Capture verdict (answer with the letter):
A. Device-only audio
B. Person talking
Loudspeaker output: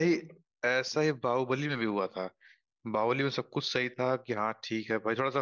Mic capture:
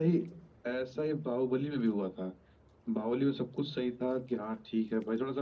A